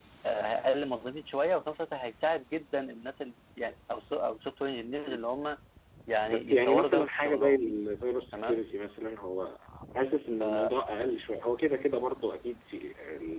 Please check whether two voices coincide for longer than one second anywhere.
Yes, from 6.3 s

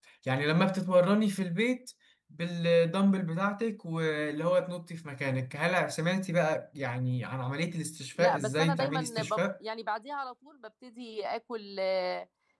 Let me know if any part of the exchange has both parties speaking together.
Yes, from 8.2 s

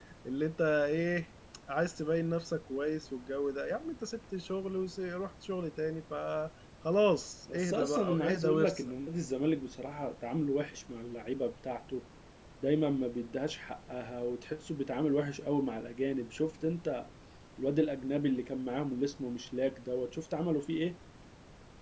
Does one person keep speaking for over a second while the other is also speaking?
Yes, from 7.5 s

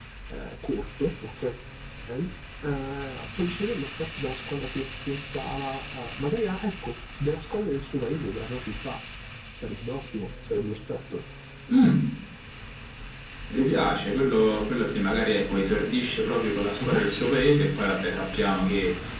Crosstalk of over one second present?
No

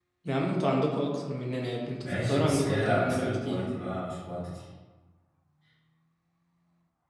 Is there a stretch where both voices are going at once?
Yes, from 2.0 s

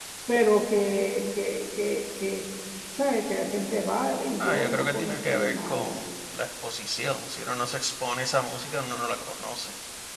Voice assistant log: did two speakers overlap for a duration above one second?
Yes, from 4.4 s

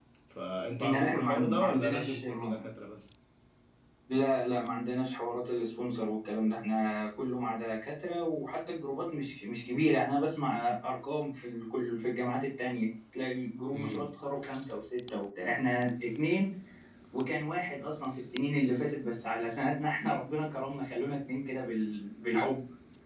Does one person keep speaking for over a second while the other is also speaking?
Yes, from 0.8 s

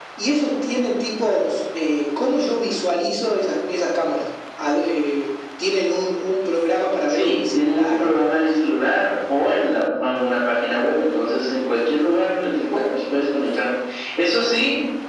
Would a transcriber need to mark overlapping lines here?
Yes, from 7.1 s

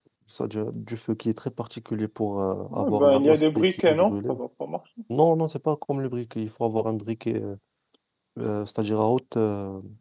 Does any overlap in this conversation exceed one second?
Yes, from 2.7 s

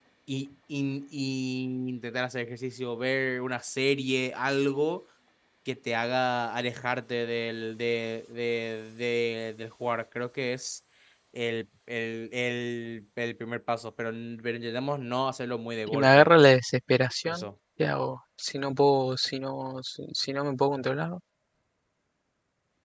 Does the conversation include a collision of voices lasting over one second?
No

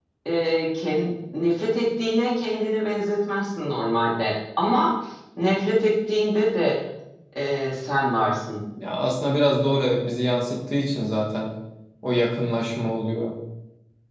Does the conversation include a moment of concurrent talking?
No

